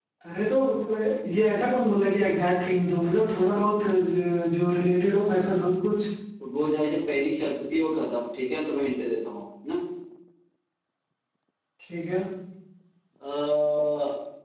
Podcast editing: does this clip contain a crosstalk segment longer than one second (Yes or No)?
No